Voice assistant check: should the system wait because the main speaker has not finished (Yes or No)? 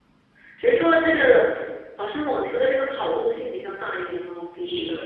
No